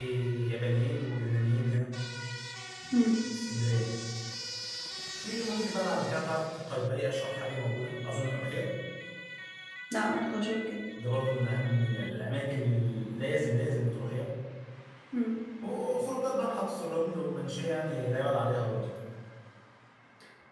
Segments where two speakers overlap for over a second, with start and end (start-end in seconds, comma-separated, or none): none